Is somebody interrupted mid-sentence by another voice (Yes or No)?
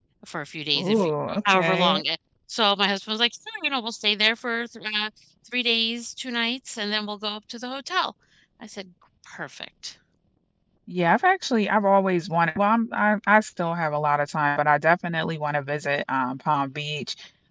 Yes